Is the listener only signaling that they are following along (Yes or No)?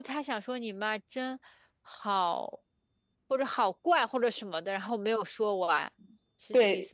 No